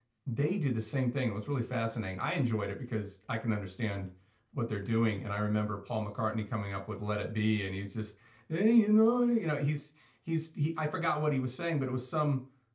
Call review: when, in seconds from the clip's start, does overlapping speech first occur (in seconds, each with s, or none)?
none